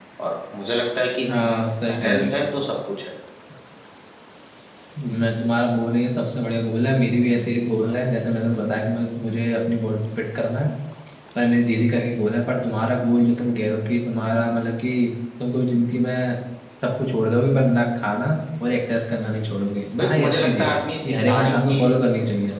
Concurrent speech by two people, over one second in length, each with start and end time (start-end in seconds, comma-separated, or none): 20.0-21.9